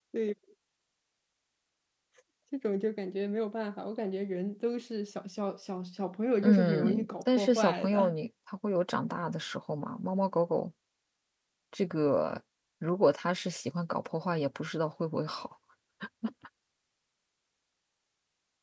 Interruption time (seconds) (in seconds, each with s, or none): 6.4 s